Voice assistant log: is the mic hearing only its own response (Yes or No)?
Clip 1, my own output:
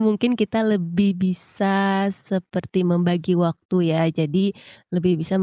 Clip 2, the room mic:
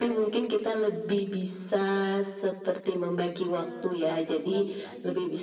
No